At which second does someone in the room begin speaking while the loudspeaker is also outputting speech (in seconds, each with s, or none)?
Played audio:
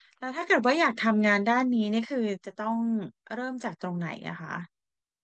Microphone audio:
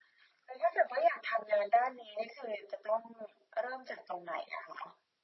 none